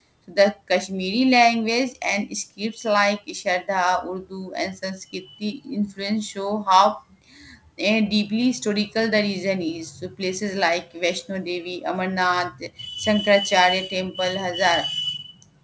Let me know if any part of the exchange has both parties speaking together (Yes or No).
No